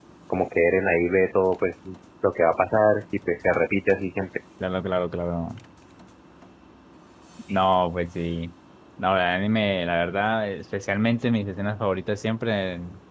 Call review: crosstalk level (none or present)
none